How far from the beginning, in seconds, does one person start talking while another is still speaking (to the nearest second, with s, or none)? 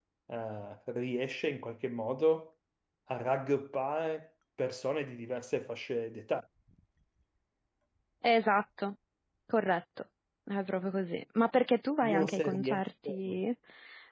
12 s